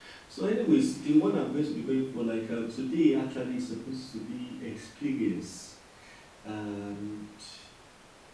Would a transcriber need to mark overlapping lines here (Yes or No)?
No